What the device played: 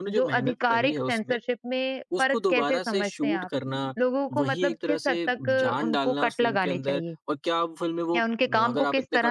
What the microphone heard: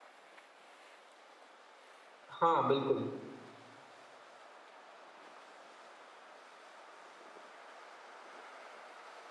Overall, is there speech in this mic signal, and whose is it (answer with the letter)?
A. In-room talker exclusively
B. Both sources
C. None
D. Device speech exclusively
A